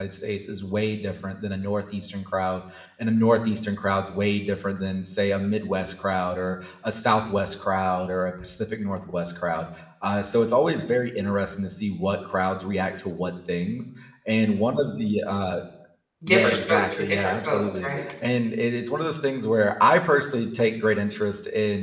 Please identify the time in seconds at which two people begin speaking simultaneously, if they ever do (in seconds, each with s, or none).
16.3 s